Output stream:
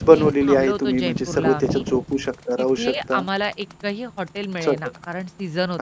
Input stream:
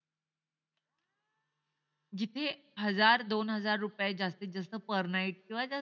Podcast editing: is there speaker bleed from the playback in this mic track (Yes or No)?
No